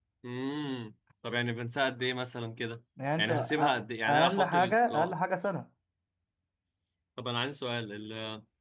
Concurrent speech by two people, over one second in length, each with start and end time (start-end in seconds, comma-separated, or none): 3.2-5.1